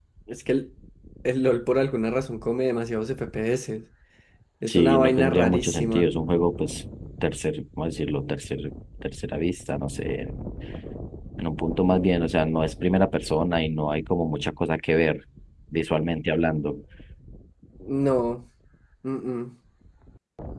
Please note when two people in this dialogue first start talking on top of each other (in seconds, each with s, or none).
4.7 s